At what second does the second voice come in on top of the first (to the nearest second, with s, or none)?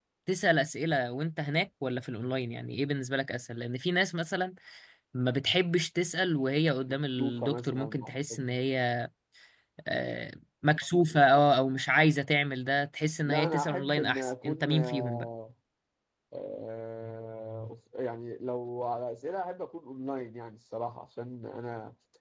7 s